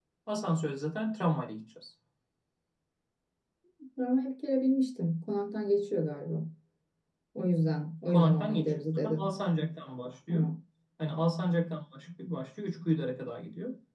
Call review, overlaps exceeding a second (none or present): present